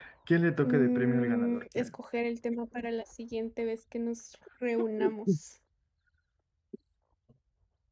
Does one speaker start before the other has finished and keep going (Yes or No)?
Yes